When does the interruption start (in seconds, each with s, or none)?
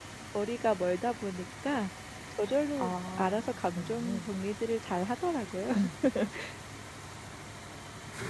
2.8 s